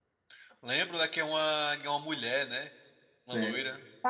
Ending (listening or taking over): taking over